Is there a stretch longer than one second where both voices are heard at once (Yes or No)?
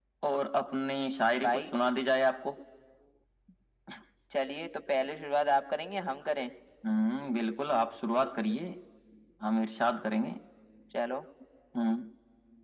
No